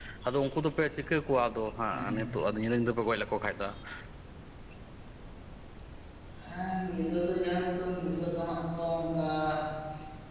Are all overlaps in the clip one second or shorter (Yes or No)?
Yes